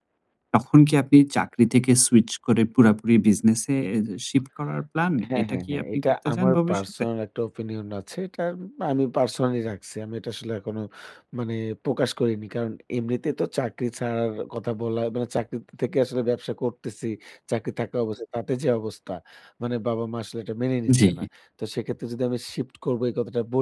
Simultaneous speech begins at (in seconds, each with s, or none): 5.4 s